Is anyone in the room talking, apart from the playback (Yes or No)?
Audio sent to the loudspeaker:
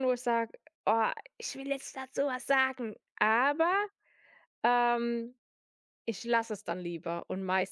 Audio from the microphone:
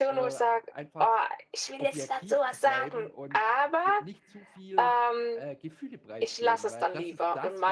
Yes